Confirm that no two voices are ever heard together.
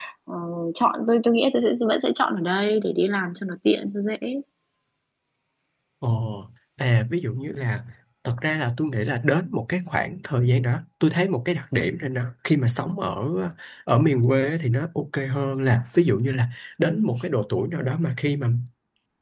Yes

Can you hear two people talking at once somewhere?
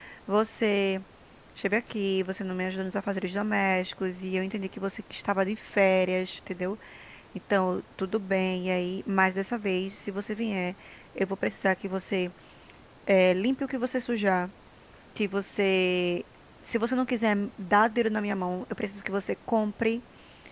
No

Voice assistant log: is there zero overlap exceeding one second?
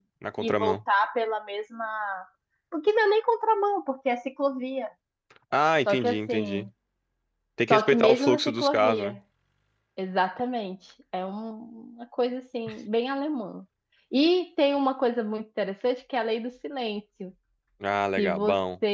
No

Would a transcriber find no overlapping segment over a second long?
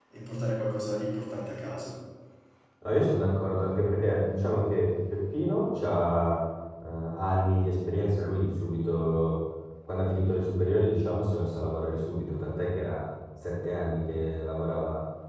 Yes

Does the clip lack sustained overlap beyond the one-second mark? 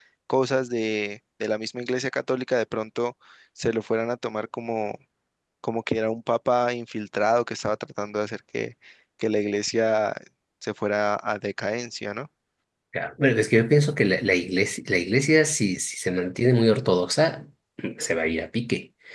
Yes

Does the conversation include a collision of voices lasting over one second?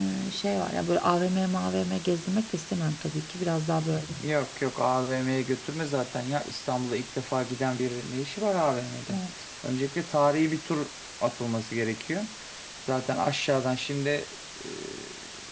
No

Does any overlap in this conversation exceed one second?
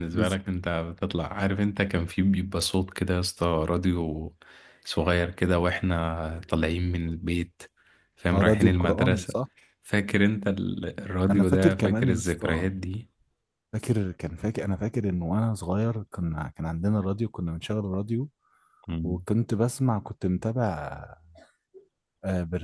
Yes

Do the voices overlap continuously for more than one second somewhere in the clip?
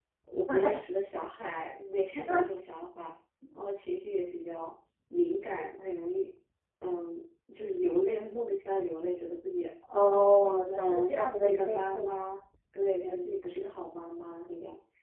Yes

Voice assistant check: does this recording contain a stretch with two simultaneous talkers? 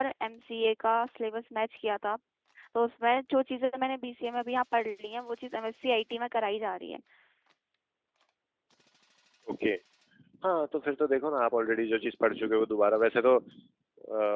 No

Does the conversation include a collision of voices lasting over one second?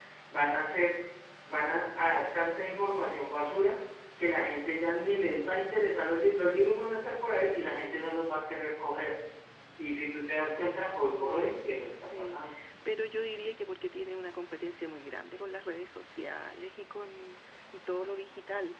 Yes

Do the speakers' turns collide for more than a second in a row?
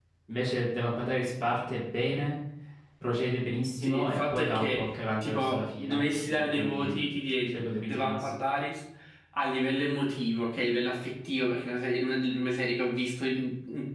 Yes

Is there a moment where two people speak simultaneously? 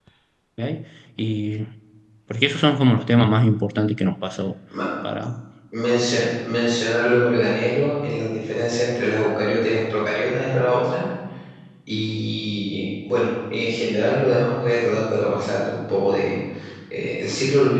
No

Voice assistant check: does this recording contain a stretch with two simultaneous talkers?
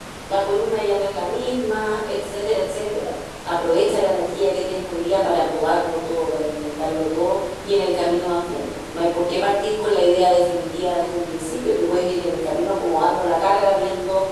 No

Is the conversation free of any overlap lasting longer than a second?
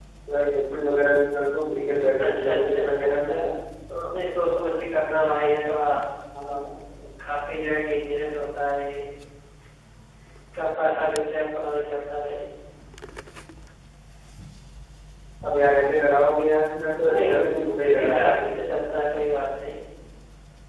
No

